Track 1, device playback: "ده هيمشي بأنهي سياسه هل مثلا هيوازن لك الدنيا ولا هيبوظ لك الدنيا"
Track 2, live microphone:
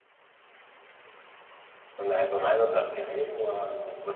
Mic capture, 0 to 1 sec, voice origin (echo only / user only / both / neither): neither